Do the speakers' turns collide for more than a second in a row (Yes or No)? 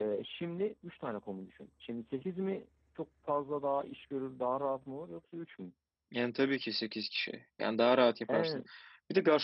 No